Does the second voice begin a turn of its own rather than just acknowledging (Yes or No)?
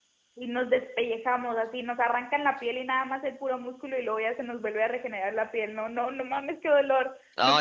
Yes